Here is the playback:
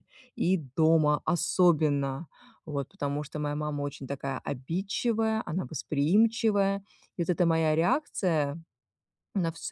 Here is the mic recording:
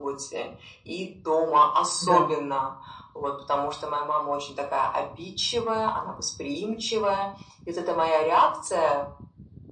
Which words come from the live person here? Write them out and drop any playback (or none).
Да,